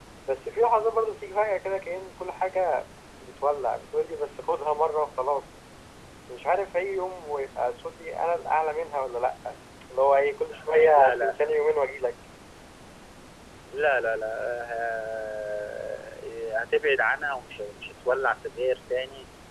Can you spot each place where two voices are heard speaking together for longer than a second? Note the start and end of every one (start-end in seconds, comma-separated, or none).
none